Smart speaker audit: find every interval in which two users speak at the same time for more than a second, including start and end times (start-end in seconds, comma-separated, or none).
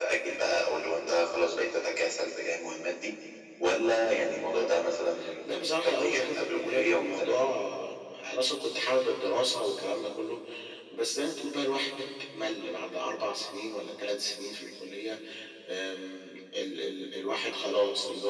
5.5-7.4